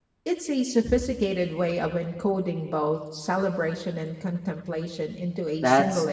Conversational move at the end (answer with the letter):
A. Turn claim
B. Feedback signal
A